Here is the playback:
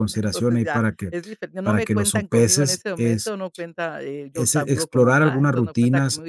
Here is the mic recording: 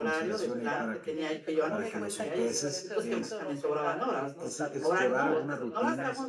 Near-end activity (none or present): present